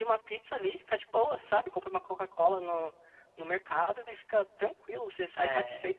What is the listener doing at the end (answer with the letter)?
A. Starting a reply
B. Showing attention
A